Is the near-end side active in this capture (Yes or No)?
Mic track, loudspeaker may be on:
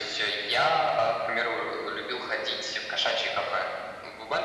No